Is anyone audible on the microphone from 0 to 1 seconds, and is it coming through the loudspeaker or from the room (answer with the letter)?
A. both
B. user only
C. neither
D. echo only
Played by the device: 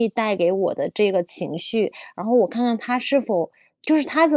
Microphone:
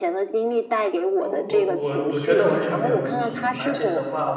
D